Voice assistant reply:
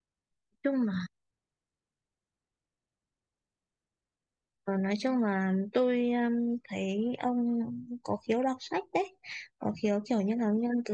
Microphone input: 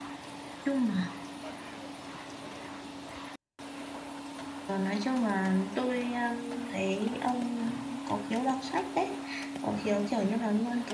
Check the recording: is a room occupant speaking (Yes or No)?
No